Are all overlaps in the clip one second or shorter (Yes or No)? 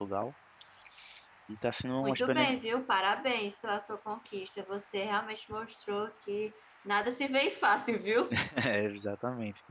Yes